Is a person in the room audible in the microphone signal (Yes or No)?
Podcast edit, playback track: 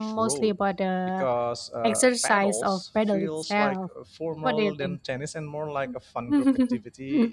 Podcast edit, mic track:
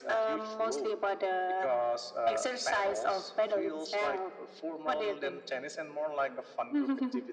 No